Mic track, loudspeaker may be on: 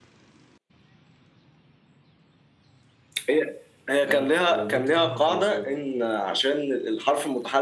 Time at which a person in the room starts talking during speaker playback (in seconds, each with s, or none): 4.0 s